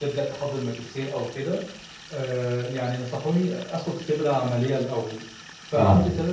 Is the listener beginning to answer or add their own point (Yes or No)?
No